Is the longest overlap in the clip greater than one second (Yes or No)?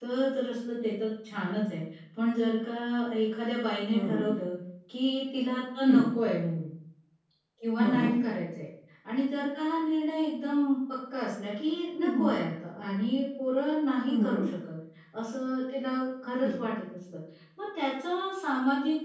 No